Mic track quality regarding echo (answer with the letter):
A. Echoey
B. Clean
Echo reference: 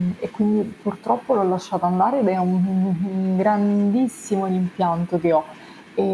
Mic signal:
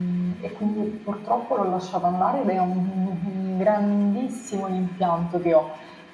A